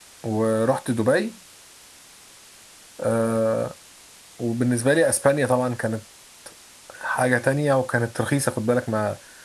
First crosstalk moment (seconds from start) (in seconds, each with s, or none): none